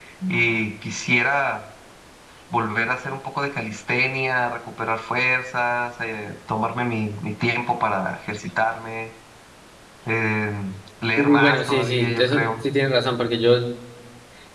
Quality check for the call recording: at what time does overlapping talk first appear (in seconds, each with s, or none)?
11.2 s